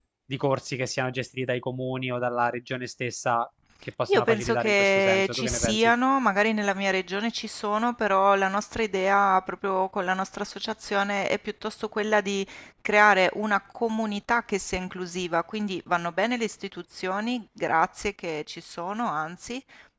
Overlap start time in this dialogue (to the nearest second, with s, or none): 4 s